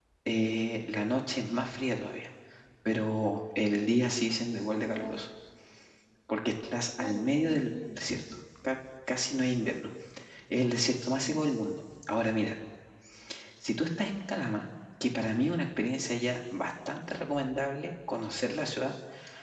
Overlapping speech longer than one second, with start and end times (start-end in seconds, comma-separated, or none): 7.0-8.2